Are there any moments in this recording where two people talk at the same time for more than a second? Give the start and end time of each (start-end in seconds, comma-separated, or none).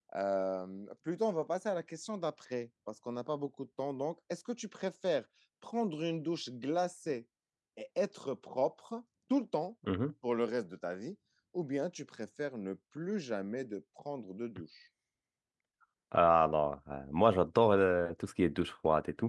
none